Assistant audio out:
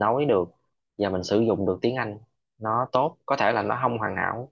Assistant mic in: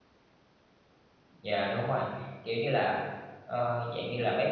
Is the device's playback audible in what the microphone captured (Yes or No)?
No